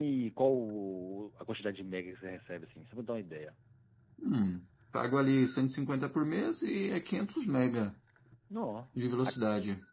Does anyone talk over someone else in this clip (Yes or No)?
No